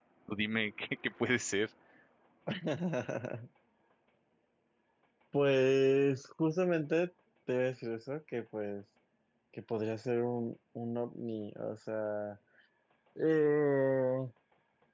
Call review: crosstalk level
none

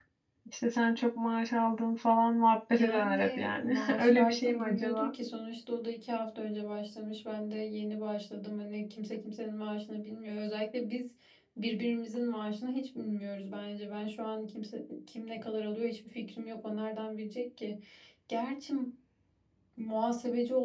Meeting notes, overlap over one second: present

